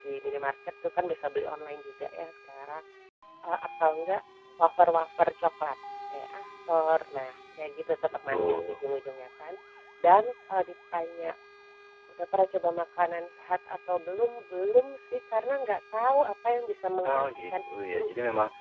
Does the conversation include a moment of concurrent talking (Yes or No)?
Yes